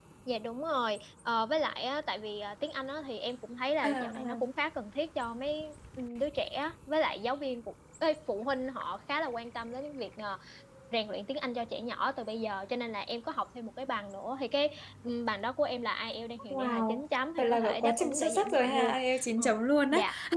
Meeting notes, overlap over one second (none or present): present